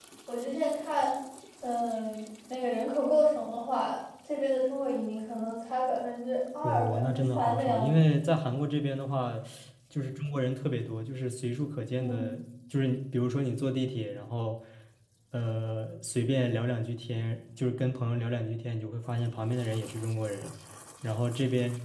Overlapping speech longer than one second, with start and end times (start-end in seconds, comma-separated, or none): 6.6-7.9